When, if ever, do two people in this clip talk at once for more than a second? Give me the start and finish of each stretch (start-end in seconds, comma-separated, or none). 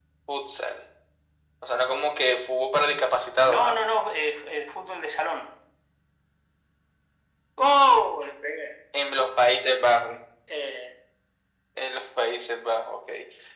none